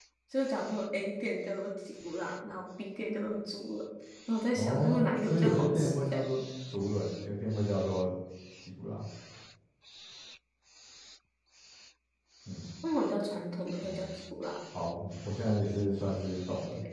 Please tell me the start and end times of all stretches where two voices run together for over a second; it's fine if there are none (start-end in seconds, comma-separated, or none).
4.5-6.2